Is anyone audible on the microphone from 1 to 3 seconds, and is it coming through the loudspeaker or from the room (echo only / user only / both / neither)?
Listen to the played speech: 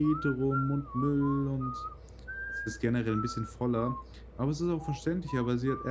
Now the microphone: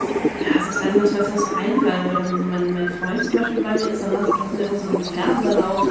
both